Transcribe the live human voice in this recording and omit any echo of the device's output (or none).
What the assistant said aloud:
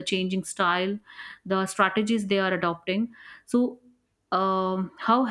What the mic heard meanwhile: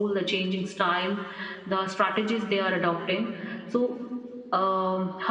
none